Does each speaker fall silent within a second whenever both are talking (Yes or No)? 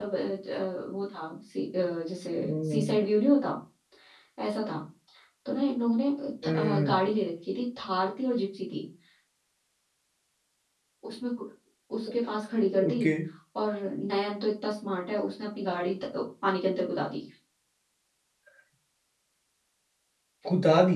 Yes